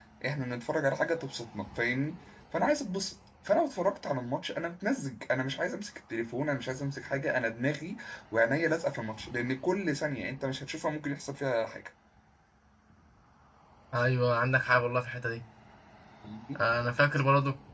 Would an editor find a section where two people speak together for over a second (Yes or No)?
No